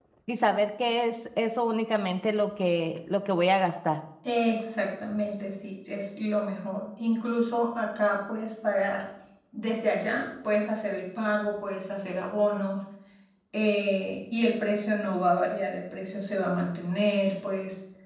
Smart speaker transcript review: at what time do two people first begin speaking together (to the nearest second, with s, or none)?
none